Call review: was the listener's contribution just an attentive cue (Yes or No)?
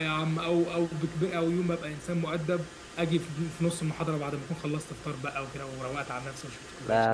No